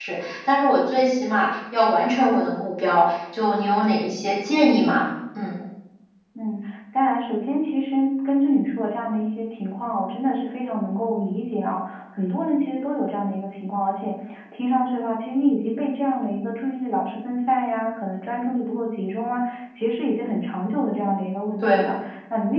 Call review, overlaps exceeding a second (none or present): none